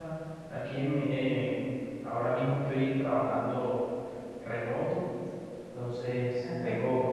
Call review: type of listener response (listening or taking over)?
listening